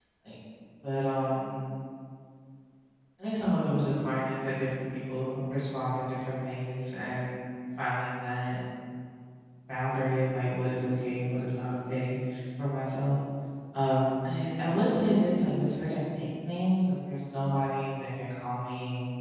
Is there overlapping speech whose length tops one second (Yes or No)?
No